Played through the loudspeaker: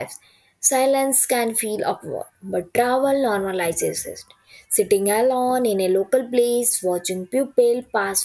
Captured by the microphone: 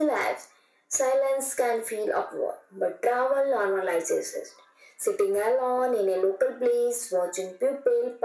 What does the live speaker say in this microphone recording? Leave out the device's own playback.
none

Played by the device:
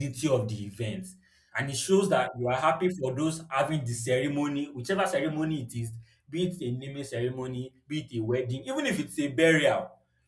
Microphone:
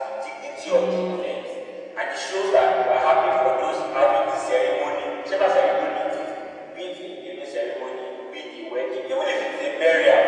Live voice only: Mm,

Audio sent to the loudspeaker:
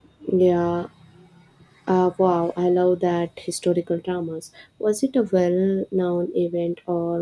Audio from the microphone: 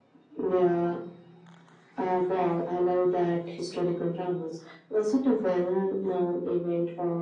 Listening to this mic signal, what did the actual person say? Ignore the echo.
none

